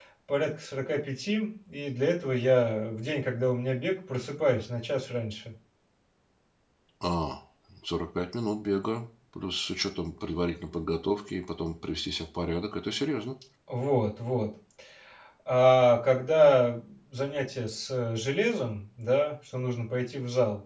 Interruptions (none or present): none